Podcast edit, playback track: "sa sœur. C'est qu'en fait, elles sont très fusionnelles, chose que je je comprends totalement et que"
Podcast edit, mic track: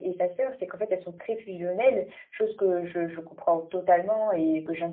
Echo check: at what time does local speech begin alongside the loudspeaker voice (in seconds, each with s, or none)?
none